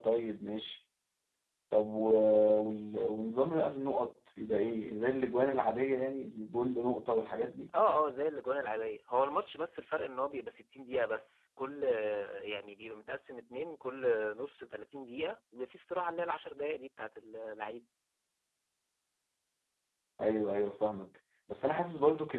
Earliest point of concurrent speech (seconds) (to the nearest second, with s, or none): none